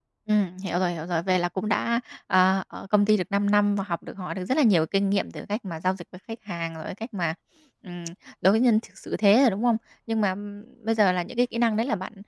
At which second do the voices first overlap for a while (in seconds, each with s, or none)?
none